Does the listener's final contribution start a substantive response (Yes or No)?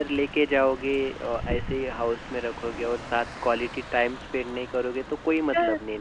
Yes